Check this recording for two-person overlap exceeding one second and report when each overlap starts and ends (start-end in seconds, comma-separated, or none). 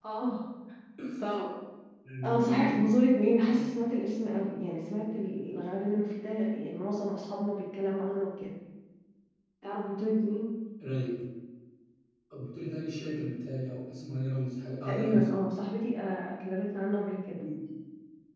none